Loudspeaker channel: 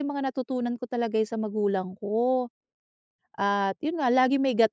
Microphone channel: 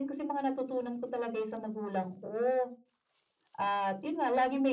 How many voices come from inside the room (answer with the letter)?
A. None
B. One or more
A